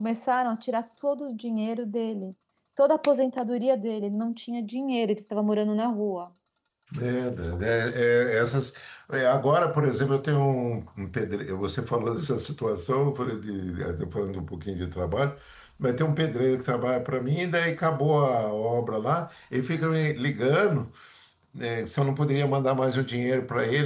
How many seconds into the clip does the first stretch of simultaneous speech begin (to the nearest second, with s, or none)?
none